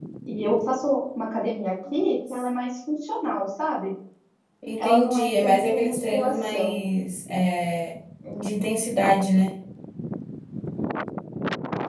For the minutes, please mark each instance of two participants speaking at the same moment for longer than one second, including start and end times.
4.8-6.8

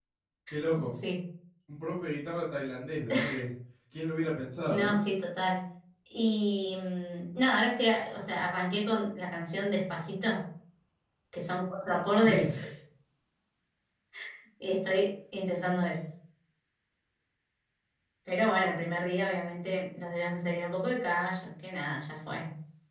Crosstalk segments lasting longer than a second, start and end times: none

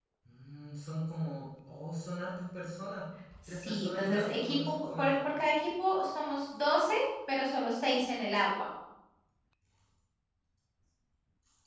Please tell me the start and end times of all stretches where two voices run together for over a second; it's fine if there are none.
3.5-5.1

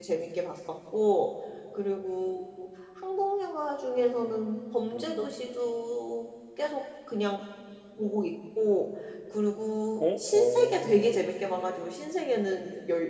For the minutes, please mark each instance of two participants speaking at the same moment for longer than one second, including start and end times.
10.0-11.3

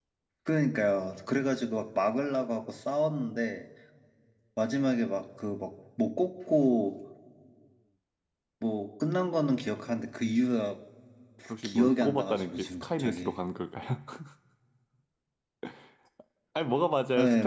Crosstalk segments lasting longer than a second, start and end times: 11.6-13.4

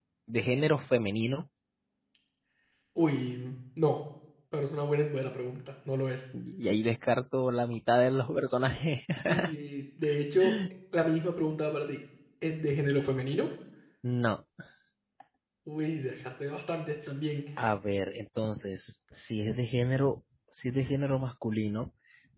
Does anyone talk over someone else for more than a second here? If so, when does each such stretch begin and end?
none

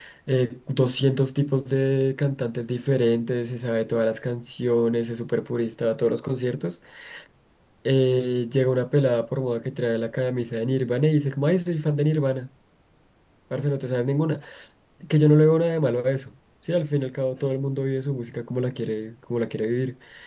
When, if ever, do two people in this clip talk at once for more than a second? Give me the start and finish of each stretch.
none

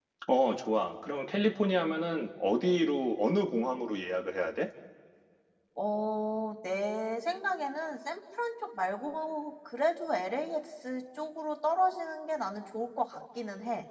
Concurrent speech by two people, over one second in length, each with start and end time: none

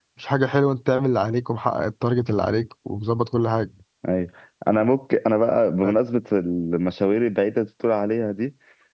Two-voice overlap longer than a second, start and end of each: none

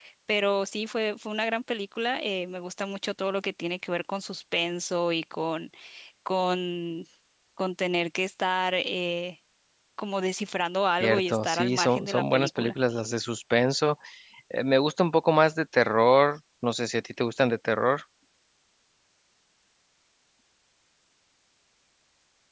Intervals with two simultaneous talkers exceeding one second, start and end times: 11.0-12.7

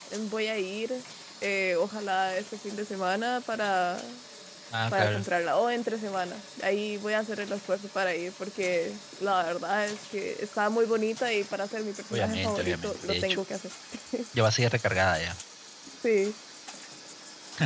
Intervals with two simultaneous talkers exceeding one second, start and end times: 12.1-13.4

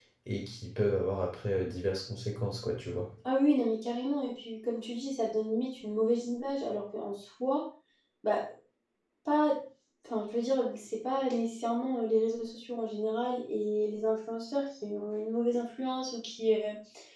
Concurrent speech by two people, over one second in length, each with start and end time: none

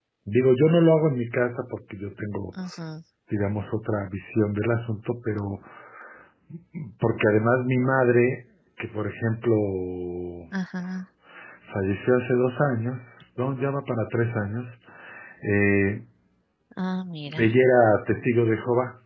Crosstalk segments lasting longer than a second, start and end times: none

